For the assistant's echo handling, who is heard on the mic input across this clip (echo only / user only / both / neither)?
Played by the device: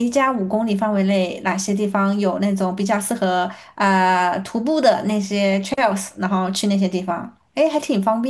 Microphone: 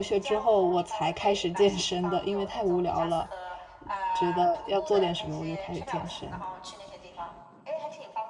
both